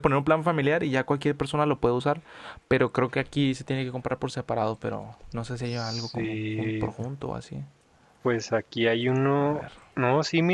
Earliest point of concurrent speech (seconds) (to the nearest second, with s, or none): 6 s